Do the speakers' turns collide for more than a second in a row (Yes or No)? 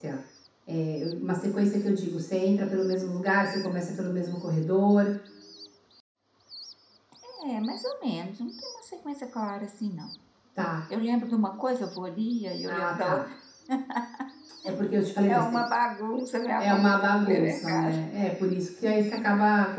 Yes